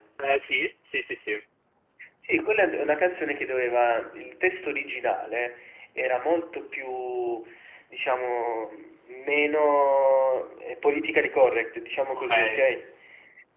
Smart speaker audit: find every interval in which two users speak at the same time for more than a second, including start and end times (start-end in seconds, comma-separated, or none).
none